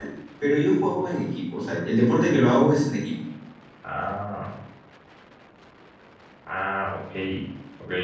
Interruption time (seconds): none

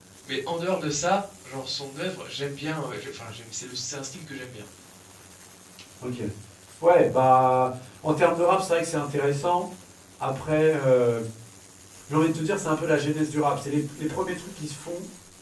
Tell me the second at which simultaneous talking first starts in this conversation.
none

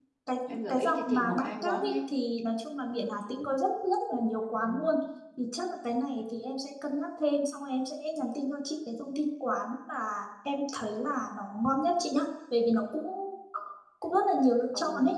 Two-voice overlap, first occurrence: 0.7 s

